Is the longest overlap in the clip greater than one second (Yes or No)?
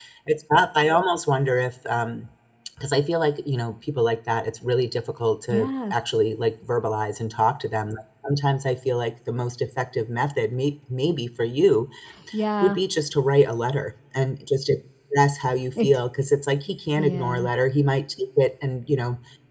No